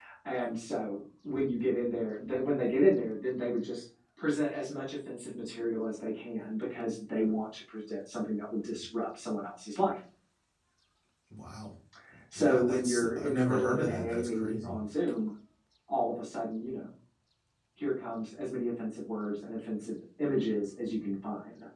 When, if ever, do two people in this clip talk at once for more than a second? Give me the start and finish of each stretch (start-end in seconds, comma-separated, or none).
12.4-14.8